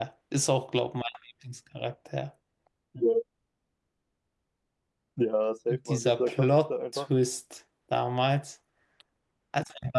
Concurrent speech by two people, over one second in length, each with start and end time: 5.7-7.0

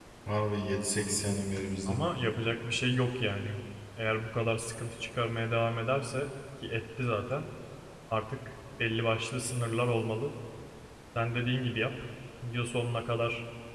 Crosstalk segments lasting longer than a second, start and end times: none

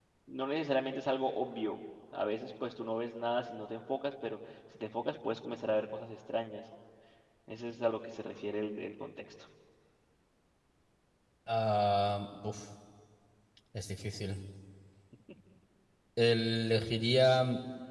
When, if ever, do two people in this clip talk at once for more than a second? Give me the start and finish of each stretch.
none

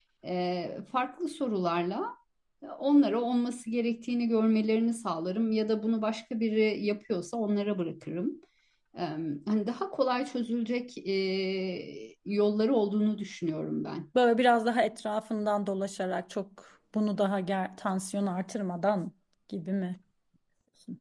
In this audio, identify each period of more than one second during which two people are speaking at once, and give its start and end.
none

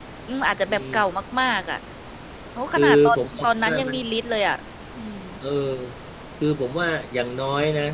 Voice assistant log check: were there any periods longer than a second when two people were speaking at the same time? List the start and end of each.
2.8-4.0

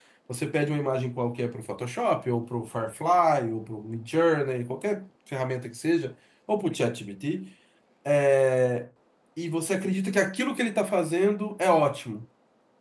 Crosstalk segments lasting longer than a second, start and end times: none

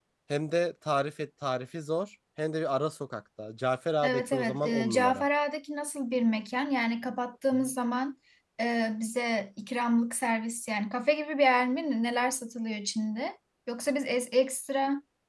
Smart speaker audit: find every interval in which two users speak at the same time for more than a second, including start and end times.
4.0-5.2

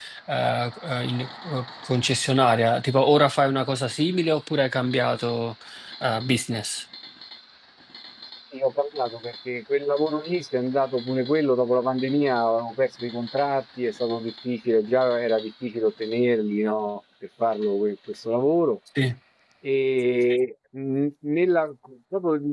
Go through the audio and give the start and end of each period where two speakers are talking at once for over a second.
none

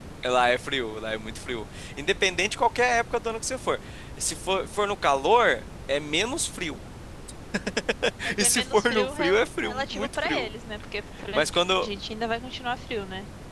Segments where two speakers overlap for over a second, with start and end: 8.4-10.5

